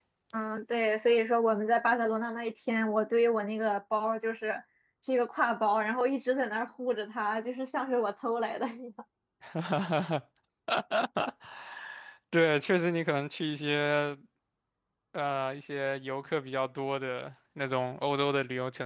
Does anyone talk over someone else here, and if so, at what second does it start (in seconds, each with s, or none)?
none